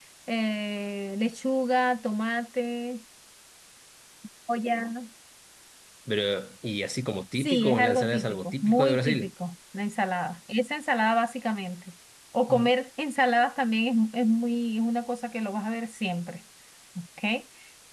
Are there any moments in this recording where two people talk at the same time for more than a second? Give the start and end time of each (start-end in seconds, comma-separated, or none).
7.4-9.3